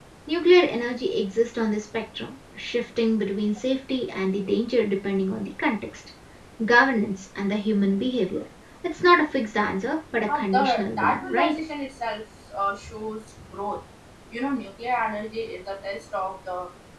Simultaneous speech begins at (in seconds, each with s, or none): 10.3 s